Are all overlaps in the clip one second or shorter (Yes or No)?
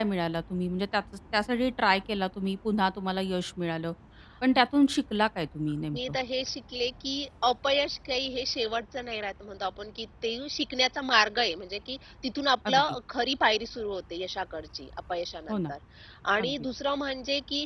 Yes